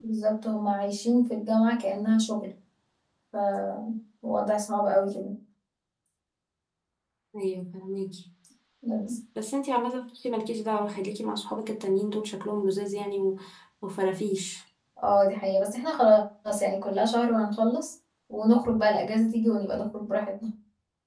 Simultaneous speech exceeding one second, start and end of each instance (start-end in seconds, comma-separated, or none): none